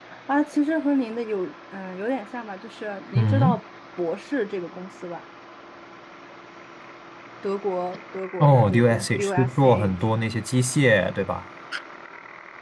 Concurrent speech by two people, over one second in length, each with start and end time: 8.4-9.9

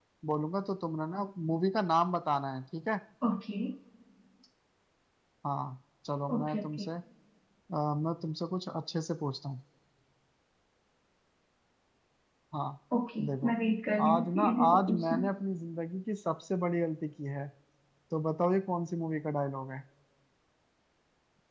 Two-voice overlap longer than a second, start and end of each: 14.0-15.2

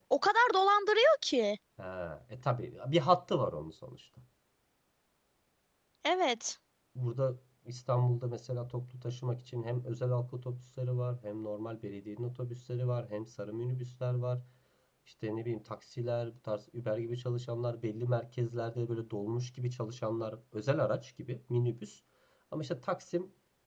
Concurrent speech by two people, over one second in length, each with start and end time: none

